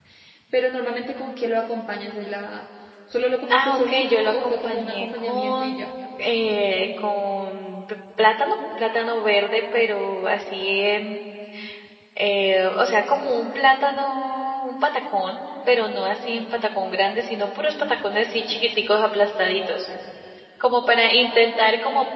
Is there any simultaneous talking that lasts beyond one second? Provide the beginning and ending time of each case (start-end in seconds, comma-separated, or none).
3.5-5.8